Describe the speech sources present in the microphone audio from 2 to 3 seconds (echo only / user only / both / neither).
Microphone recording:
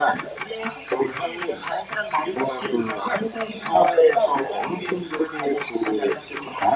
echo only